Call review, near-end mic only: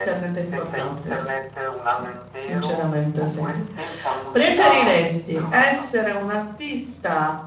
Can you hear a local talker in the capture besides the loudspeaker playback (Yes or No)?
Yes